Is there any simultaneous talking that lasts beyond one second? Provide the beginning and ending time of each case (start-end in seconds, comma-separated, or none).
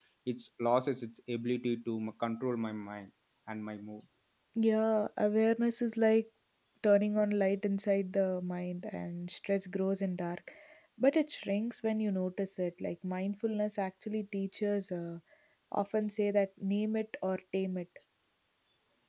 none